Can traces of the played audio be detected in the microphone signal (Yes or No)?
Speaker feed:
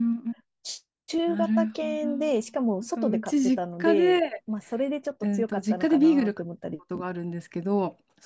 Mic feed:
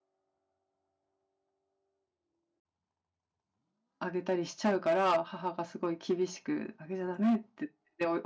No